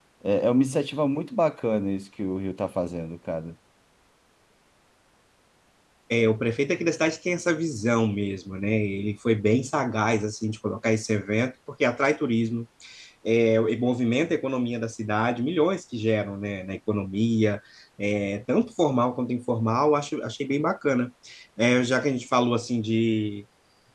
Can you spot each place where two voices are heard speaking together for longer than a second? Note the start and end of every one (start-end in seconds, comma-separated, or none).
none